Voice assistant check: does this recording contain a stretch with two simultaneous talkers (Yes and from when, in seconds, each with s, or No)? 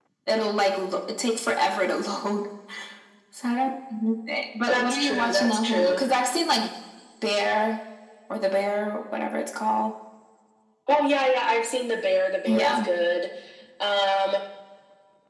Yes, from 4.6 s